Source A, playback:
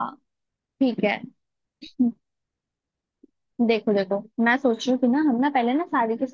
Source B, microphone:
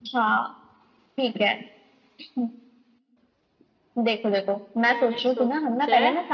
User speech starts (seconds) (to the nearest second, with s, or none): 5 s